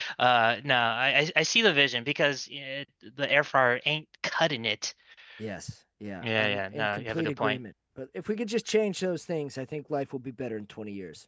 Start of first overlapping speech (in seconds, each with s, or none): 6.2 s